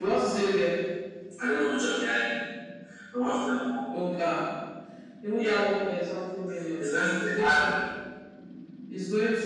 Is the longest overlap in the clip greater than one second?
No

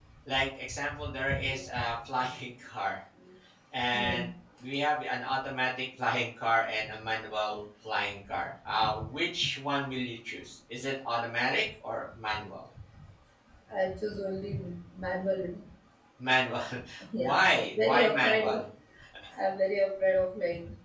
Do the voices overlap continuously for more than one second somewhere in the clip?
Yes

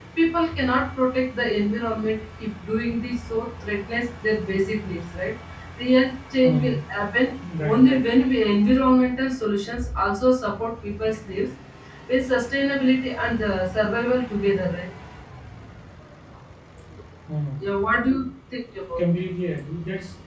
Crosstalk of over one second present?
No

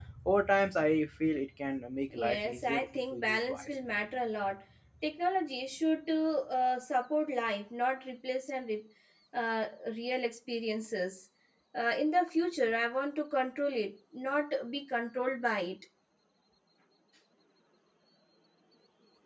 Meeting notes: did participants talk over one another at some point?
Yes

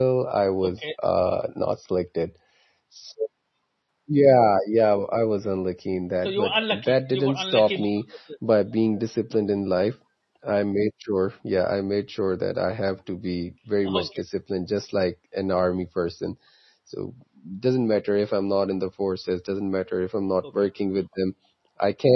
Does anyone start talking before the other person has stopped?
Yes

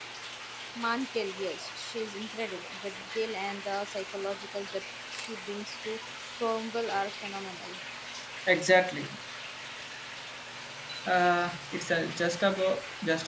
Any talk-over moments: No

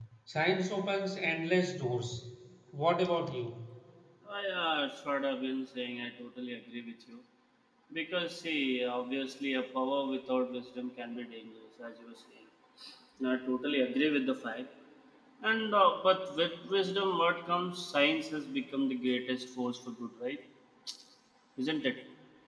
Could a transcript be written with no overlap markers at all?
Yes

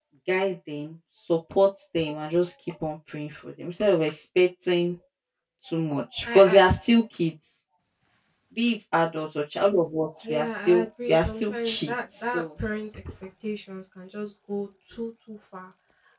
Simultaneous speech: Yes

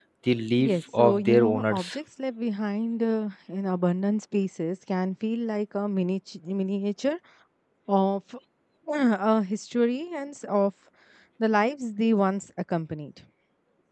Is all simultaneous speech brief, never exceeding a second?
No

